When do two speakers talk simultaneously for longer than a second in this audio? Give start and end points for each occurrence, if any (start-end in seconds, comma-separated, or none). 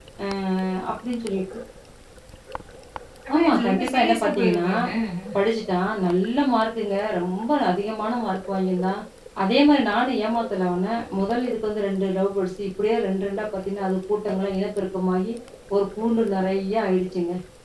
3.4-4.7